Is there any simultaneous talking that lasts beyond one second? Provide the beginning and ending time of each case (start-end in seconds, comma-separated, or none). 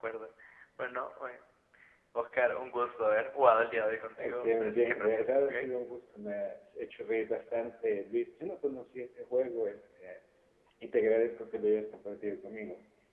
4.2-5.7